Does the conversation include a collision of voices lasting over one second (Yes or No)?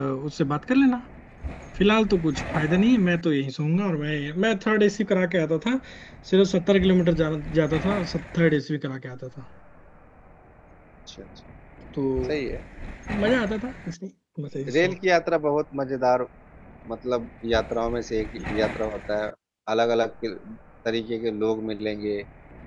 No